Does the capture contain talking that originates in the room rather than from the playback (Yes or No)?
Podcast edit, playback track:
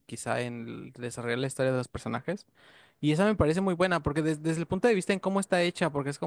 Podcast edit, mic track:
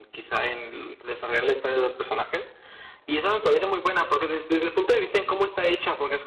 No